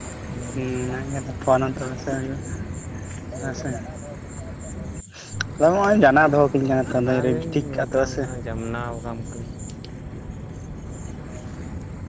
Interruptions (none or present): present